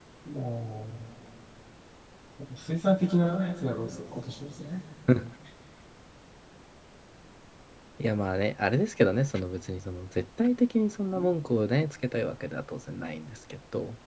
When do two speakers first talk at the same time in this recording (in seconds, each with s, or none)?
none